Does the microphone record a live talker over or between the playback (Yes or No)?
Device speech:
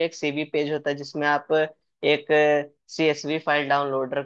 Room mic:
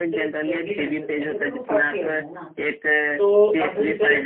Yes